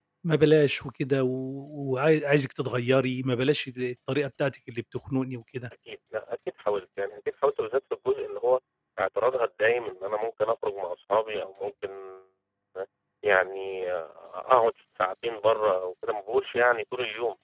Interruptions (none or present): none